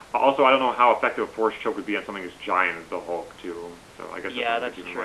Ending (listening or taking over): taking over